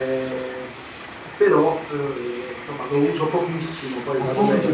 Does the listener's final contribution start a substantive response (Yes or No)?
Yes